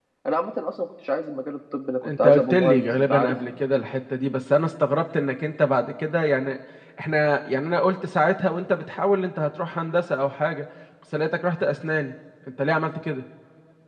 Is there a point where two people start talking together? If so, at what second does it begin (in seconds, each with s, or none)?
2.0 s